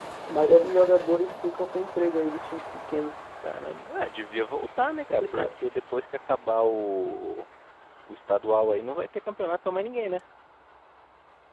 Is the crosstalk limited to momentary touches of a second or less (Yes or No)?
Yes